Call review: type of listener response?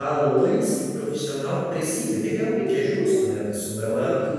listening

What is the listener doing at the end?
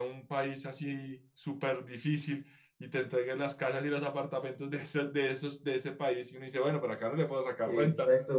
taking over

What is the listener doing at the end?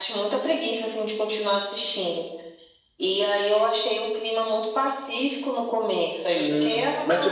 taking over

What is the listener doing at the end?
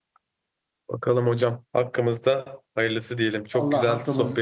taking over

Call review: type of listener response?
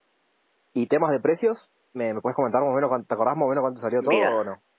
taking over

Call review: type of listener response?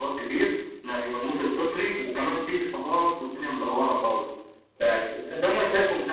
taking over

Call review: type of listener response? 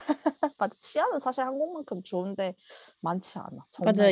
taking over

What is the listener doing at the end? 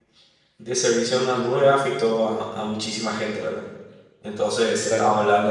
taking over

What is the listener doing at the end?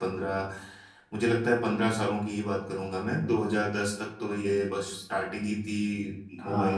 taking over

